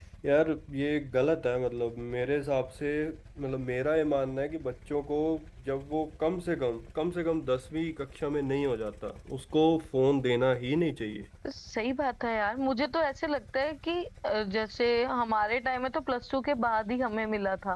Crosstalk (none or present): none